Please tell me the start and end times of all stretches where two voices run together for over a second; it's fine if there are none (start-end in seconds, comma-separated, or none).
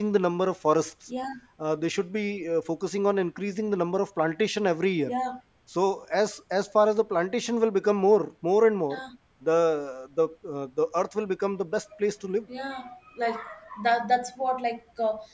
none